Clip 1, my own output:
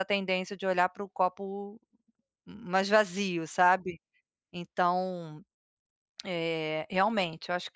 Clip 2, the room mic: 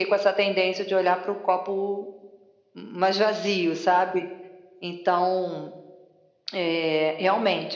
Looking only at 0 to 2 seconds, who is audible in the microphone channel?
echo only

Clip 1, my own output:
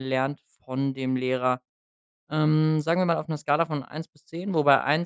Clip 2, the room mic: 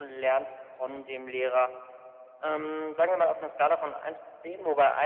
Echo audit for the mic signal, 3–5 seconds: echo only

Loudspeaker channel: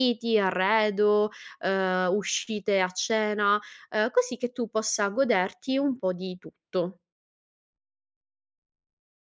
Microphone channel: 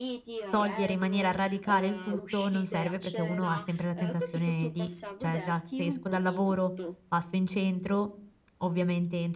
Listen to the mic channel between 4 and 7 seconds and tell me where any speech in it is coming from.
both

